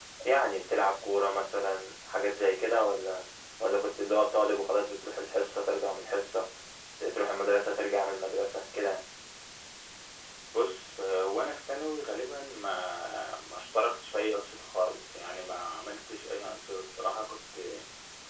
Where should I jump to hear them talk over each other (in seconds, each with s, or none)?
none